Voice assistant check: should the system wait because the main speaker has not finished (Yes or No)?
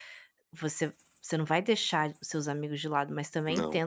Yes